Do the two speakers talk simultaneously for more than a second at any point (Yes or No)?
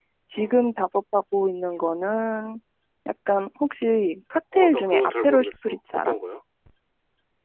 Yes